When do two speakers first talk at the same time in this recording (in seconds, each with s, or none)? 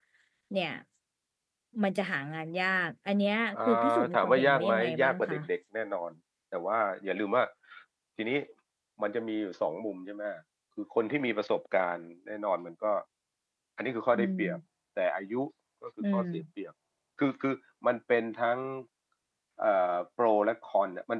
3.5 s